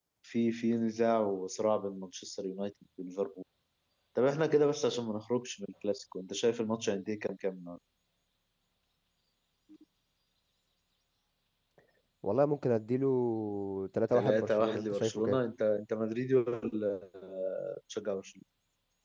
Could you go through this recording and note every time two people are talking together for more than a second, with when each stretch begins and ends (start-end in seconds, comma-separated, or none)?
14.1-15.4